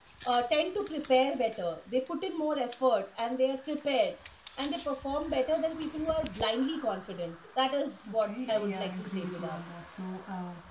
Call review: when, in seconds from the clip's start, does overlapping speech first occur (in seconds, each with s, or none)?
8.1 s